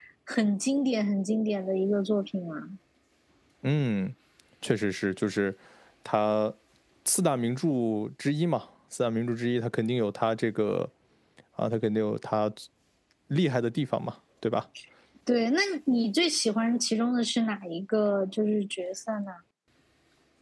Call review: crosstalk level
none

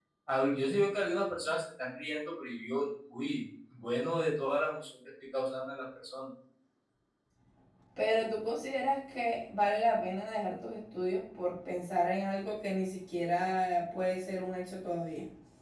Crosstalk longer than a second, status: none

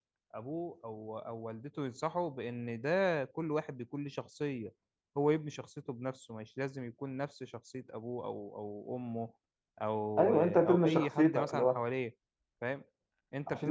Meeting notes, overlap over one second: present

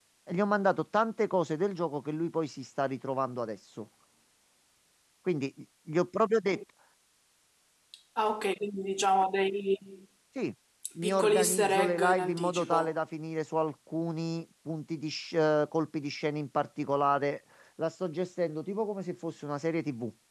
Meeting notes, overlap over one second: present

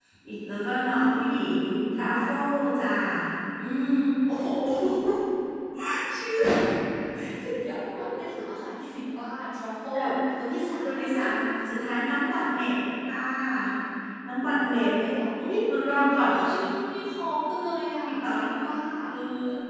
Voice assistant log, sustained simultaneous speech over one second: none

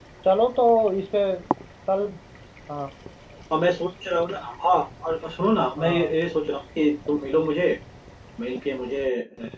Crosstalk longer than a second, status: none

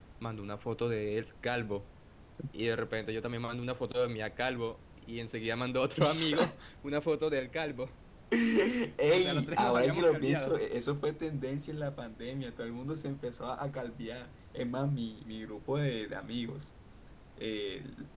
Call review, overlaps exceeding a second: present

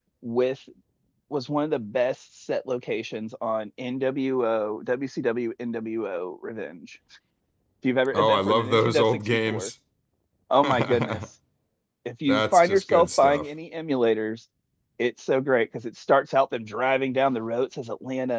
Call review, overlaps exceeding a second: present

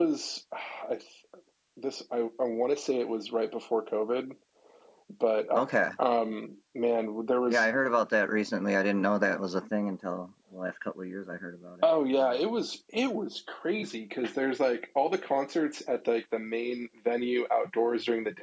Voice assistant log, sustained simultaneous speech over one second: none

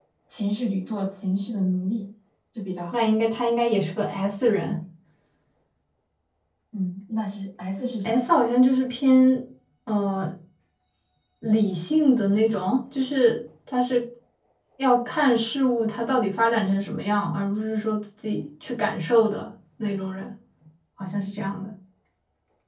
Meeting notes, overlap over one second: none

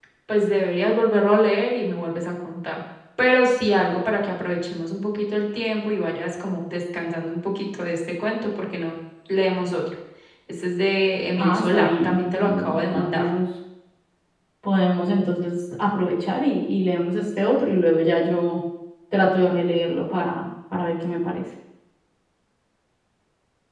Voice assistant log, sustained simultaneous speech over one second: present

